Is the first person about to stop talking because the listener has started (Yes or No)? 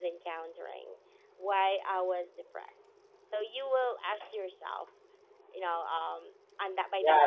Yes